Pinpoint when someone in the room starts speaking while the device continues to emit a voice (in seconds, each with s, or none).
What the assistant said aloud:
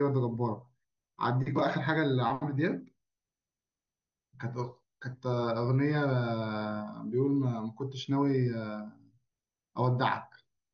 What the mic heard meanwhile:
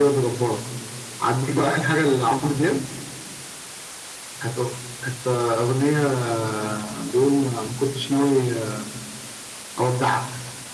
none